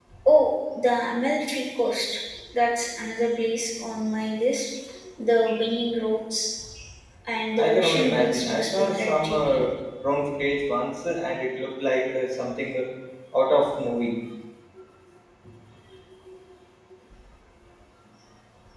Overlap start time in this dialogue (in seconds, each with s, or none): 7.6 s